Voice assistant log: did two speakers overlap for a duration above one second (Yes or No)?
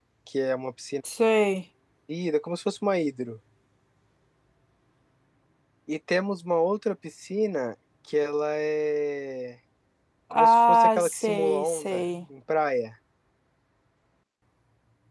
Yes